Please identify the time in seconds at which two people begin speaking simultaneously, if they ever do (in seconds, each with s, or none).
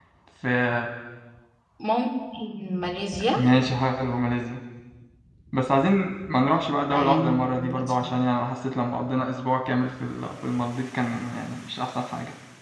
6.9 s